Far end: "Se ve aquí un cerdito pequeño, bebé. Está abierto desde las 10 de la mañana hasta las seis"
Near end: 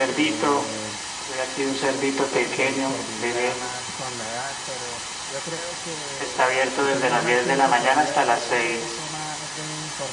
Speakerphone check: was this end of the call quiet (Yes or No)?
No